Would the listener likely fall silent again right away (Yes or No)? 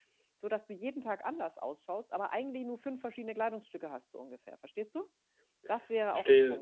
No